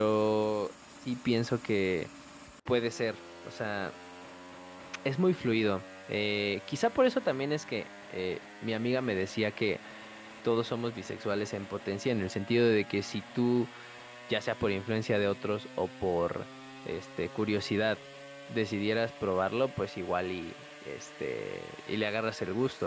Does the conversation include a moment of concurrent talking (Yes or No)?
No